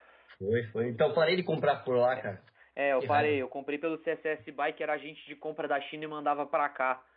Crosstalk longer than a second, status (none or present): none